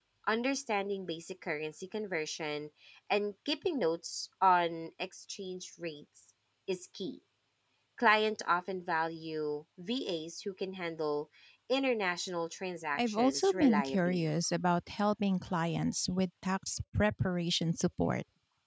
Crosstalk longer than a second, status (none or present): present